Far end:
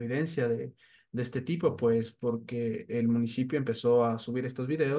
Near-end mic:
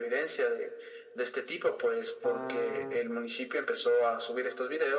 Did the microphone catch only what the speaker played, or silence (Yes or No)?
No